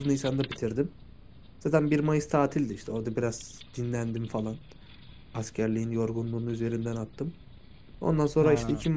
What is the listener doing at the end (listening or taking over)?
listening